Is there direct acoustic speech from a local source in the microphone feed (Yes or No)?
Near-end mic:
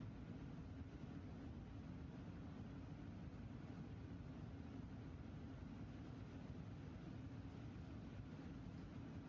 No